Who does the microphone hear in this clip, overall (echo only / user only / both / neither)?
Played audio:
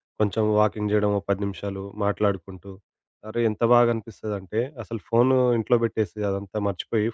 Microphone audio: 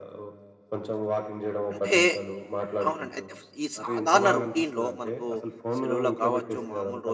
both